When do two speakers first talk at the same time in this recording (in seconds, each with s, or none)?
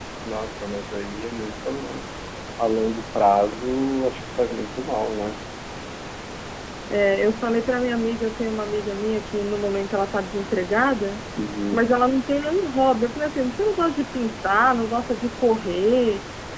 none